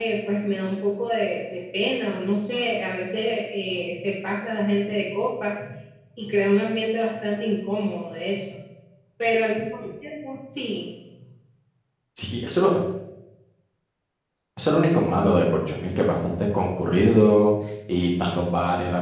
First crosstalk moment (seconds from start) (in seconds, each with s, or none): none